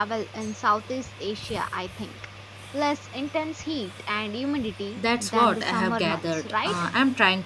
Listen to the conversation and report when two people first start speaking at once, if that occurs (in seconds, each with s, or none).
5.0 s